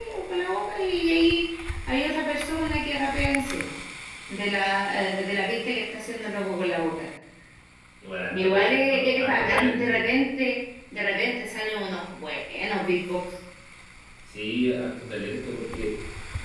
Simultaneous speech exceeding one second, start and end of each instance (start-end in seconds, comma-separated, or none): 8.3-10.1